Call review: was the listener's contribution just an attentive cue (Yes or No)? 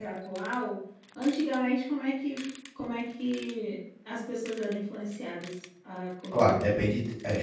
No